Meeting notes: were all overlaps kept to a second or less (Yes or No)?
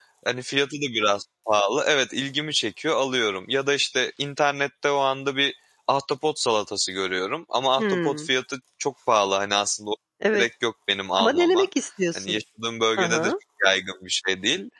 Yes